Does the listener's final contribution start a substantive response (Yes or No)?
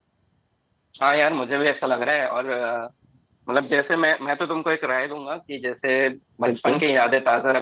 No